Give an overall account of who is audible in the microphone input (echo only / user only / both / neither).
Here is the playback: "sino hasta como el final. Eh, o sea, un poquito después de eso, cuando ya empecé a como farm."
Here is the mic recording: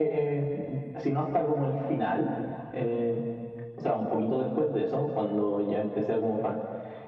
echo only